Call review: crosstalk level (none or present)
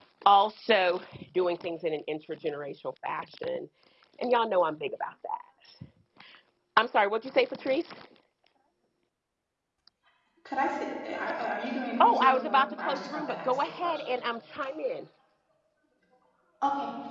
present